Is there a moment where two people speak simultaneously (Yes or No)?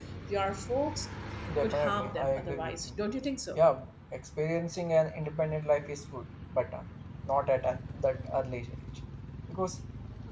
Yes